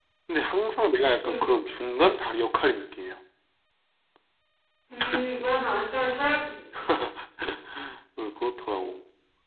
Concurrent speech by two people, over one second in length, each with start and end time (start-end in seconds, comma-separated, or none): none